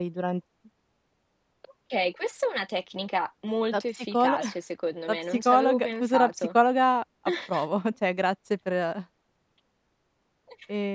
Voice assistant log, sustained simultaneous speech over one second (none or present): present